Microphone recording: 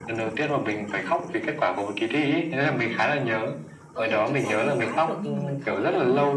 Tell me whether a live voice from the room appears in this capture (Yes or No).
Yes